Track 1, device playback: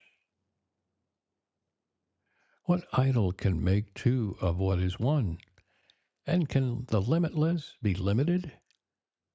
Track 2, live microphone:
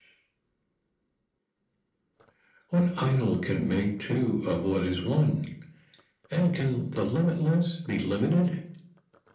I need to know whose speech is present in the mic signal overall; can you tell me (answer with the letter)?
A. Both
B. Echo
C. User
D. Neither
B